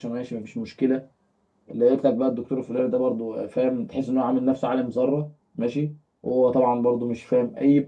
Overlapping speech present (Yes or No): No